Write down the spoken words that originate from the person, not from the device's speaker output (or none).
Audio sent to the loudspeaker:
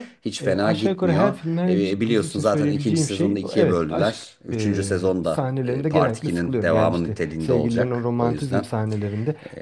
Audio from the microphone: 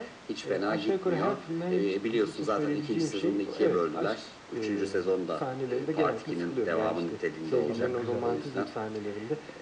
Tamam güzel.